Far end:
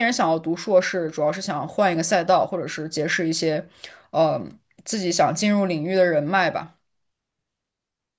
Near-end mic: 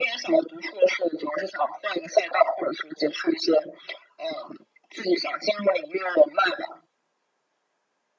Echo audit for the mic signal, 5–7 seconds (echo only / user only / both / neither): echo only